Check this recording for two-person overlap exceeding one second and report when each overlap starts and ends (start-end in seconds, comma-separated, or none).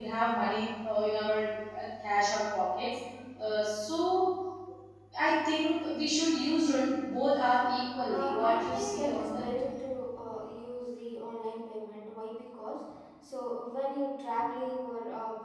8.1-9.4